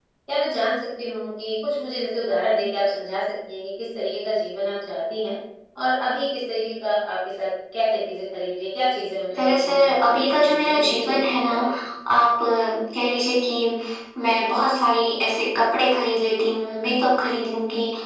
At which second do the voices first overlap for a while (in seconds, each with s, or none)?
9.3 s